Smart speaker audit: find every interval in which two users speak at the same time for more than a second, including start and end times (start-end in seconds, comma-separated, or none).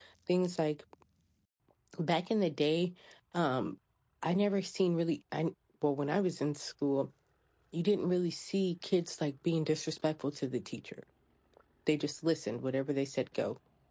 none